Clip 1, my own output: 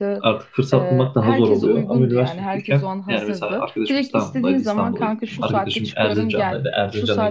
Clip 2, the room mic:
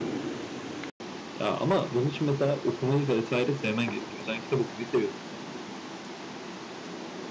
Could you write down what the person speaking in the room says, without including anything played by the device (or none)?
Ya ama bunun için mesela okumayı vesaire sevmen gerekiyor. Sen kitap okumayı seviyorsun.